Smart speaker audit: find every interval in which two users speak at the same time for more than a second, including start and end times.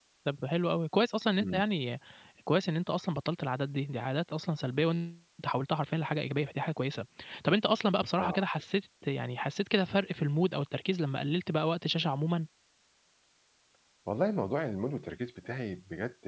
none

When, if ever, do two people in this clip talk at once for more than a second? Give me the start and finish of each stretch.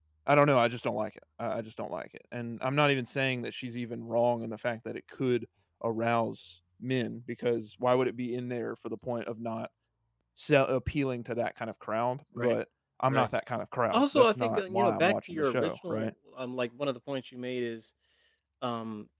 13.9-16.1

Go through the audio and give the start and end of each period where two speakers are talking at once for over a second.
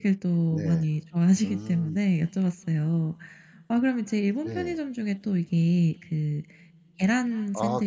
none

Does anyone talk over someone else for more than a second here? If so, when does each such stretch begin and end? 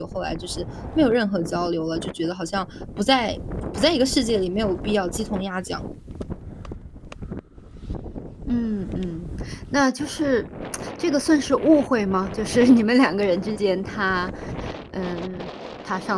none

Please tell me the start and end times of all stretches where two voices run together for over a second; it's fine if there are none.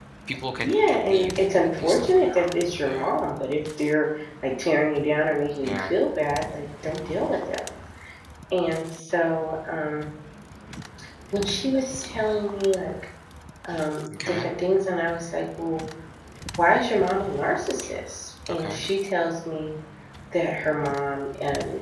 0.6-3.1

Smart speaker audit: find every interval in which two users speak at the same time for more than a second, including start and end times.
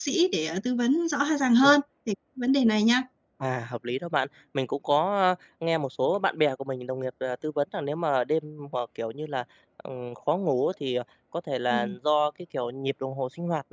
none

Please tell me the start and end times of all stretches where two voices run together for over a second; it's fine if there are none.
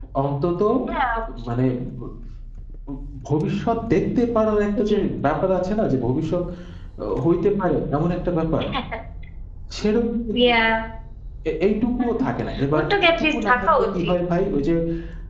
12.8-14.2

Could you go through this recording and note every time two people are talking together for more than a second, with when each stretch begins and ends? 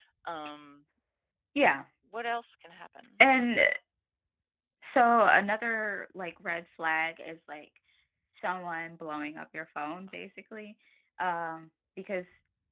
none

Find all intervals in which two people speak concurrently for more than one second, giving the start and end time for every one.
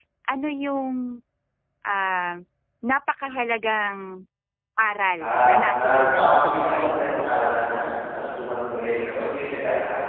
5.2-6.9

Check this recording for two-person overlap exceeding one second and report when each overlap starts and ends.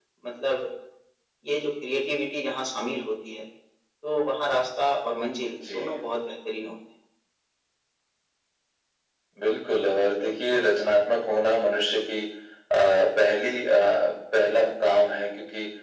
none

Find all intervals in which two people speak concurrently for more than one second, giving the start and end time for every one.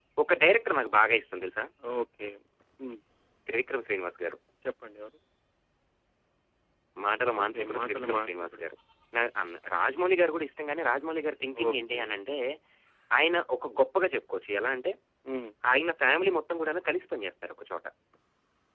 7.4-8.6

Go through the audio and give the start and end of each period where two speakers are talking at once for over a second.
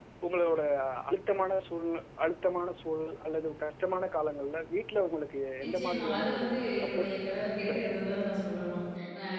5.6-7.1

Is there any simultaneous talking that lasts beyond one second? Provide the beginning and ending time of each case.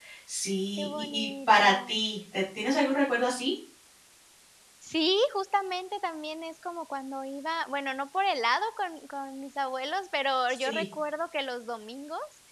0.8-2.0

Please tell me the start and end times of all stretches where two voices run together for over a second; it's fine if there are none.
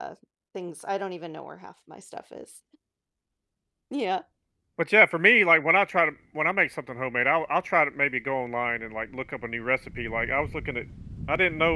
none

